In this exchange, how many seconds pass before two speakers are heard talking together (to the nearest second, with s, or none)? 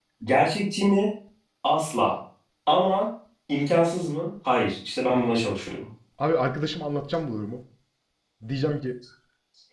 none